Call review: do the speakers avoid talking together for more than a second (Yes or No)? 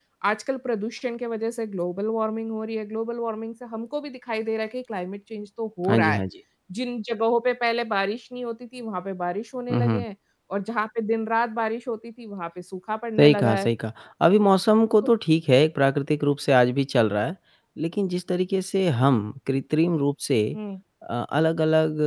Yes